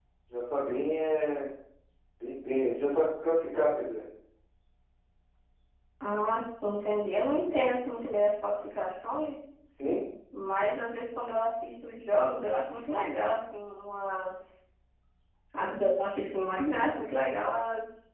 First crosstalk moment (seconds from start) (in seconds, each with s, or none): none